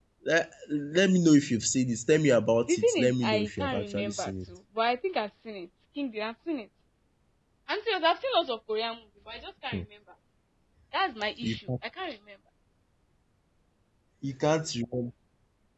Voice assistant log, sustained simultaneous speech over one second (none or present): present